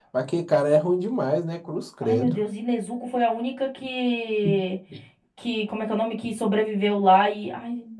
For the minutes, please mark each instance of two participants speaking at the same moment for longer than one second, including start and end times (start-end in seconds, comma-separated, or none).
none